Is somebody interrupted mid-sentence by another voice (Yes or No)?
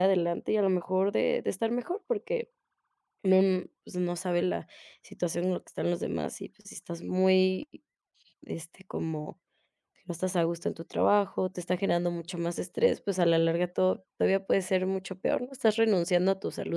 No